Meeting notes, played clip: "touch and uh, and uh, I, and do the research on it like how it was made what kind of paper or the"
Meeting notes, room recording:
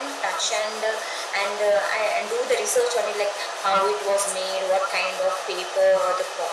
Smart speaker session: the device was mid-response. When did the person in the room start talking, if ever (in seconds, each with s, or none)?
none